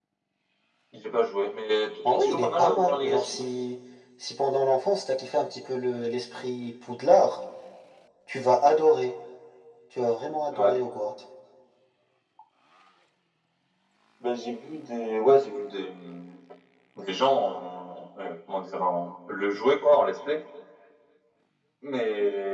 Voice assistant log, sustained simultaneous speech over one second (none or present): present